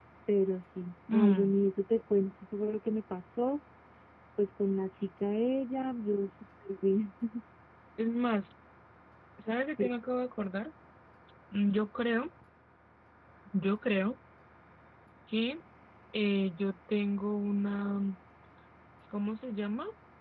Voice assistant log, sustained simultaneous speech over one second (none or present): none